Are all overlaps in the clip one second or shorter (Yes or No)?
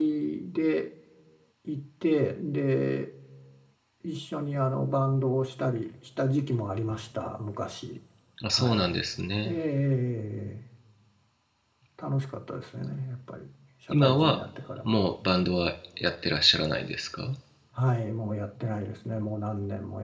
Yes